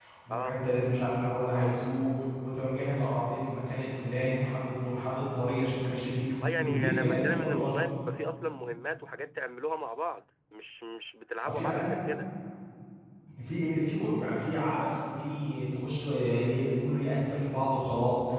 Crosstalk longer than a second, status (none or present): present